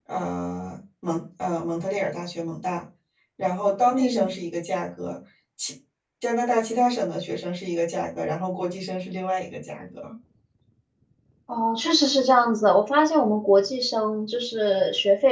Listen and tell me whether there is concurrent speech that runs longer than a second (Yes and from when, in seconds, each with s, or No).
No